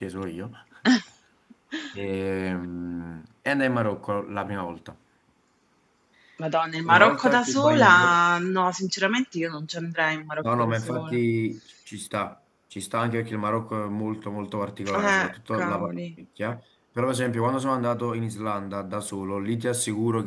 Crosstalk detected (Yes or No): Yes